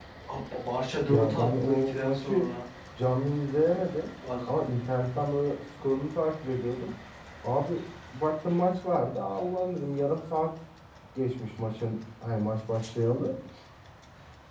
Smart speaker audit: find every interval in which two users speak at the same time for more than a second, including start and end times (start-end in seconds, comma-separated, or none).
1.1-2.5